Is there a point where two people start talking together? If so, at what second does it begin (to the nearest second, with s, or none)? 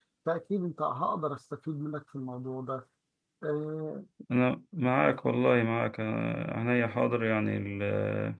none